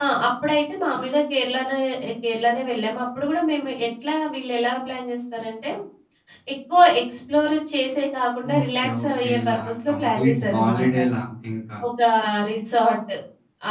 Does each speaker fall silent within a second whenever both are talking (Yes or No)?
No